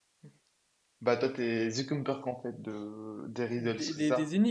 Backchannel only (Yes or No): No